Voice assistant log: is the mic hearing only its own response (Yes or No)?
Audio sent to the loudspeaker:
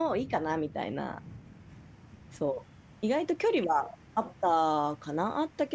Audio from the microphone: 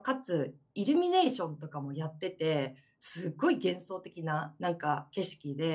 No